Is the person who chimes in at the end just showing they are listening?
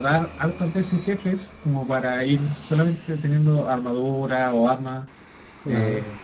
Yes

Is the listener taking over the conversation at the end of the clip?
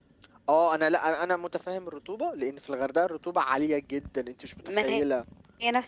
Yes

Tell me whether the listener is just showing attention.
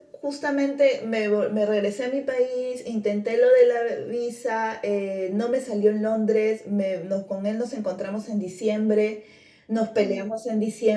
Yes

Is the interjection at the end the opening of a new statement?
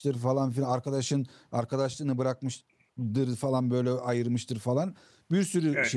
No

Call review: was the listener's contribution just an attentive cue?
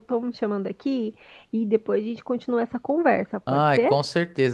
No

